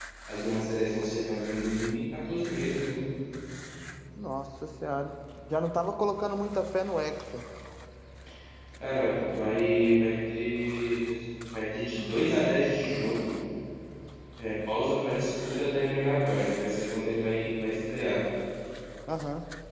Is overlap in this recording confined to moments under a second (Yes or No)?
Yes